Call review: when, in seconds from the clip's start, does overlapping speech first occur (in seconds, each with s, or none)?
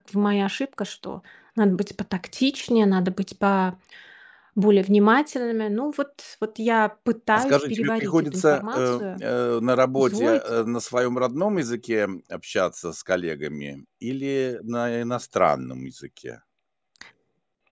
7.3 s